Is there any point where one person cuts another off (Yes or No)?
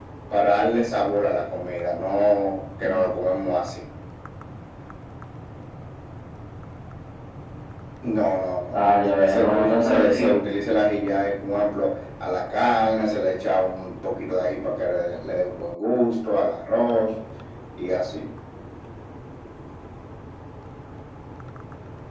Yes